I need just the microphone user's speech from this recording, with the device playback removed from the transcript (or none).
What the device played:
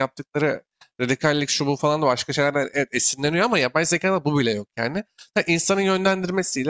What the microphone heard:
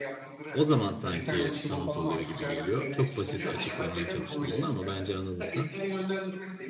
o zaman sanki sanat oluyor gibi geliyor. Çok basit açıklamaya çalıştım bunu ama bence anladın sen.